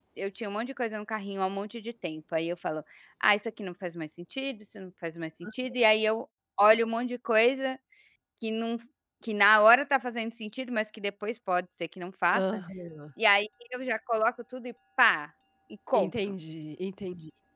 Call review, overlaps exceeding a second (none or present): none